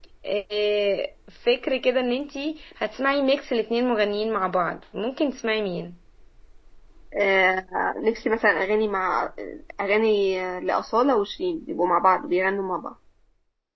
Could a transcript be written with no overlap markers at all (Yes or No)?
Yes